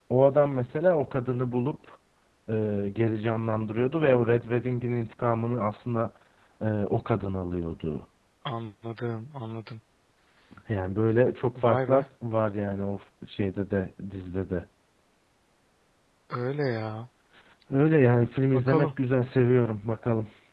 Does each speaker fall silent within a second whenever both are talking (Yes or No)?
Yes